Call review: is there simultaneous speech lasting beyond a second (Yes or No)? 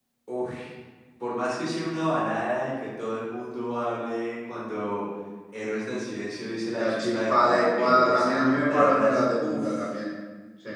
Yes